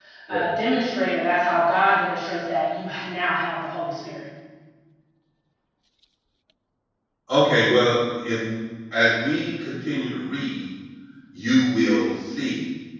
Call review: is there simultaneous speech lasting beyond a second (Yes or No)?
No